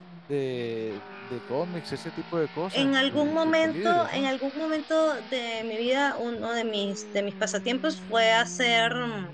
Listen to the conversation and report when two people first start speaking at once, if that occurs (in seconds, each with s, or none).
2.7 s